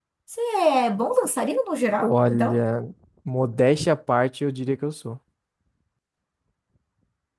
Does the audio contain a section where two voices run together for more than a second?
No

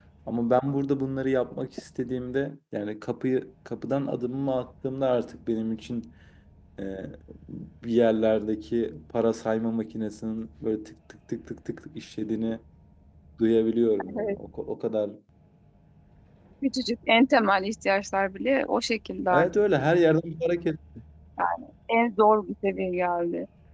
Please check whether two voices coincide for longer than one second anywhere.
No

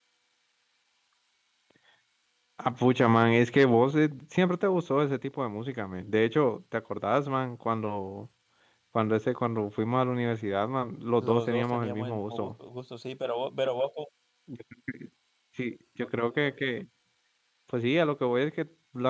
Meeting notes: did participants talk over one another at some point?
Yes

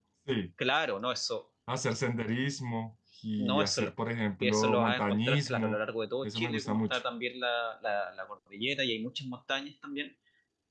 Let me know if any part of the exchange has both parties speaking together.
Yes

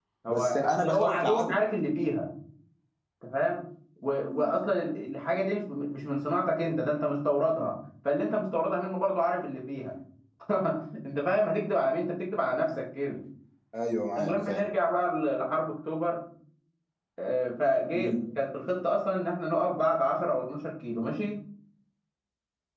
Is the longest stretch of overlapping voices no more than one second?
No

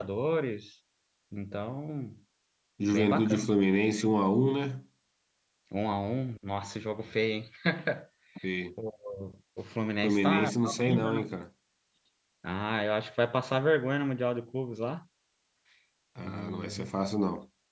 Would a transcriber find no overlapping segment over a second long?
No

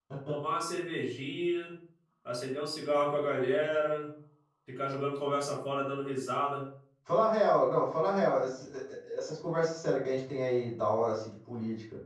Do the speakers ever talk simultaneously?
No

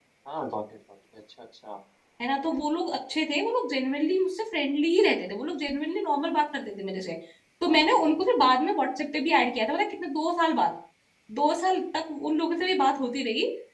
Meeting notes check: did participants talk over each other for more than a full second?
No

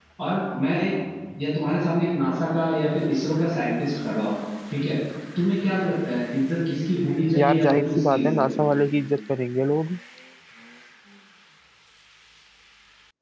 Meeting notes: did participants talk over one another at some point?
Yes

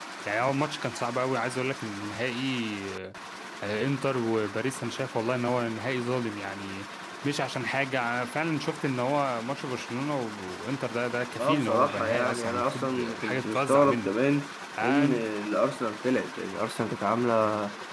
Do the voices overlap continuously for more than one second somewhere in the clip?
Yes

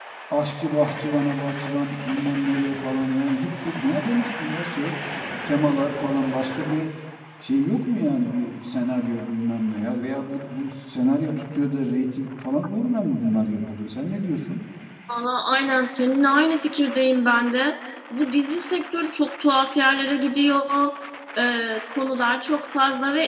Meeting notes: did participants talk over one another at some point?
No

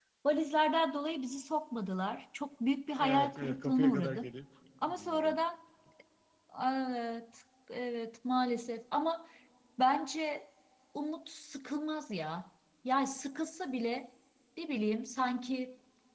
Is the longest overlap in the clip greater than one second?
Yes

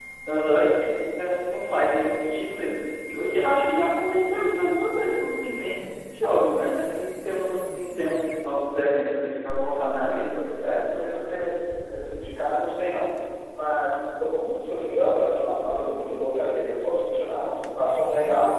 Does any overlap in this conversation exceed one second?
No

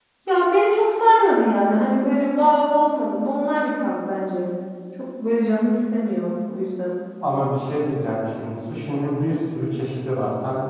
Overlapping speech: No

